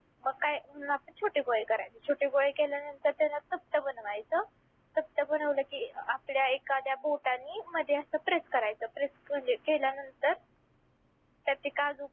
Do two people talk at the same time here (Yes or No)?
No